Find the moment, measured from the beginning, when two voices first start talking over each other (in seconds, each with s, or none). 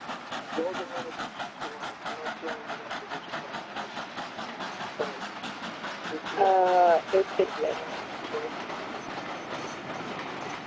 6.4 s